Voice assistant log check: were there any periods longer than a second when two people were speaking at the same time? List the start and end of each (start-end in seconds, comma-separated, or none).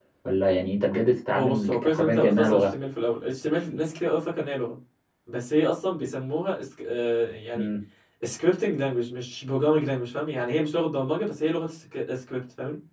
1.3-2.7